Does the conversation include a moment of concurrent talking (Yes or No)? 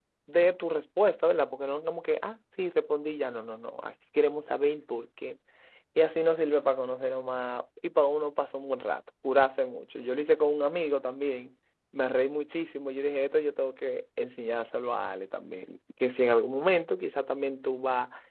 No